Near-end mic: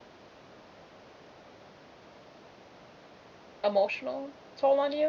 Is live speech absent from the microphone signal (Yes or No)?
No